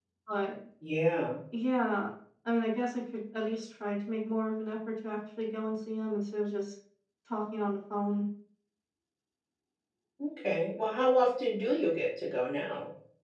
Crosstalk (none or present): none